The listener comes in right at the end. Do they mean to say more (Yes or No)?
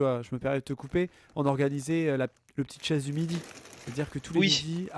No